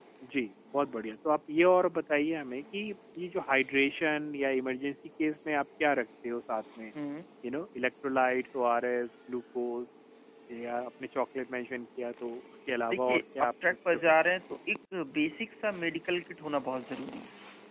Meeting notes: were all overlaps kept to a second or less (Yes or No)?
No